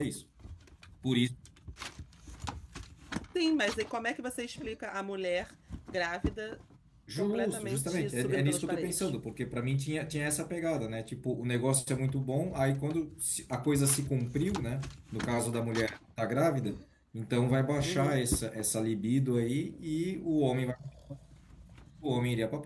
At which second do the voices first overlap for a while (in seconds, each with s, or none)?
7.2 s